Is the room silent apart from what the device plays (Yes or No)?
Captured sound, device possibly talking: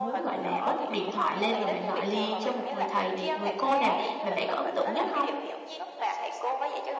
No